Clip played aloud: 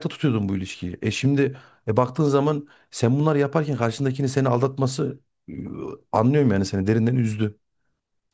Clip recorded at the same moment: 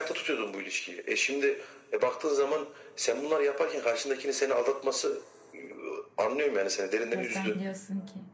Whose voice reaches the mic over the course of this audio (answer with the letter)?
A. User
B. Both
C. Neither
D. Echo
B